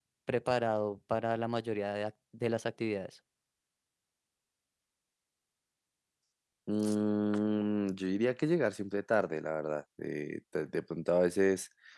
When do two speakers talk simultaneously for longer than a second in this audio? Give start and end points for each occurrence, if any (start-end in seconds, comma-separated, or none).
none